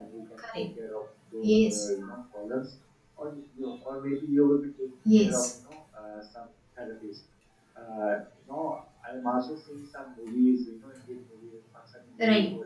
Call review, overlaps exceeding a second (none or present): none